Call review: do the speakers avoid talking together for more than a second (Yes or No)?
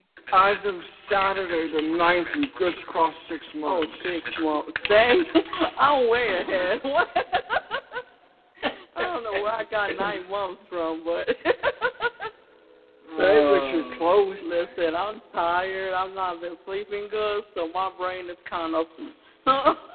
No